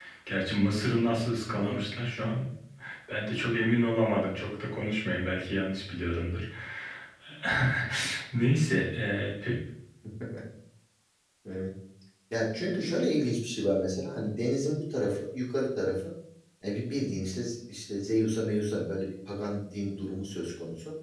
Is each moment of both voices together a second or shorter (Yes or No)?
Yes